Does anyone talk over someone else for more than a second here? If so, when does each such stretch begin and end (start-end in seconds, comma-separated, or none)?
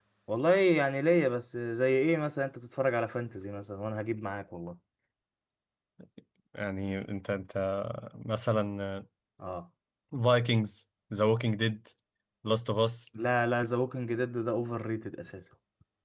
none